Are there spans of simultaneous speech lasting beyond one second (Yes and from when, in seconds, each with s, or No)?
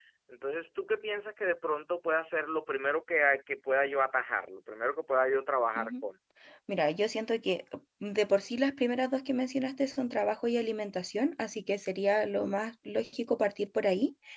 No